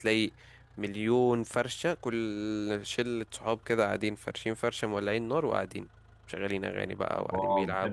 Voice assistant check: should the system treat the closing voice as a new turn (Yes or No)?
Yes